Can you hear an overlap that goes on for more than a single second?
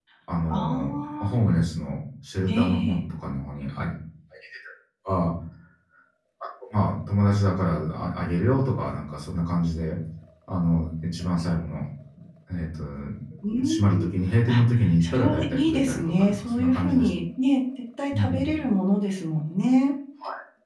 Yes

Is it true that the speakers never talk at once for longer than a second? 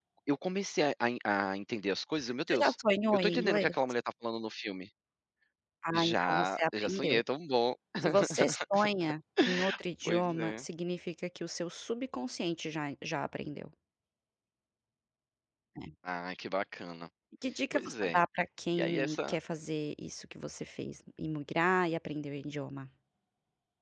No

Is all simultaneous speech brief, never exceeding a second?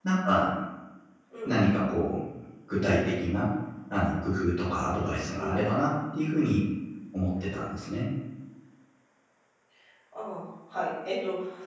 Yes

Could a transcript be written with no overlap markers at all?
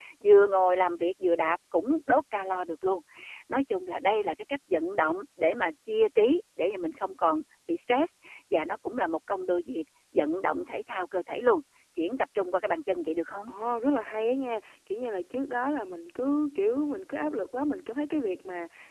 Yes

